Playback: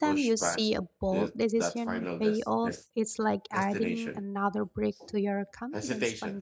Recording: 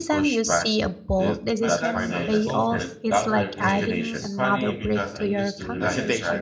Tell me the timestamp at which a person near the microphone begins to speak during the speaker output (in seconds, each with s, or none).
1.6 s